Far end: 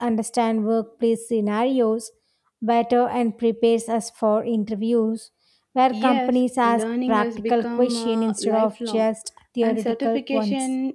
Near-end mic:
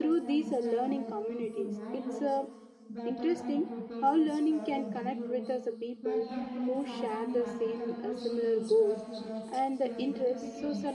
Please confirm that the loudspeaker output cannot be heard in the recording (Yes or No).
No